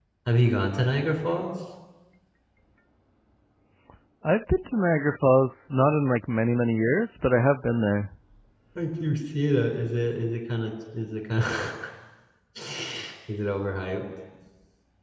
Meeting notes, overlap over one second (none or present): none